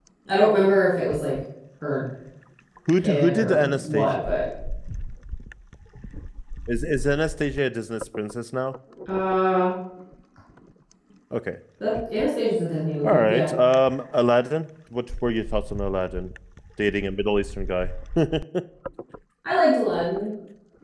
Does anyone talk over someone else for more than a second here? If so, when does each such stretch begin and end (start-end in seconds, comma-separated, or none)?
3.0-4.2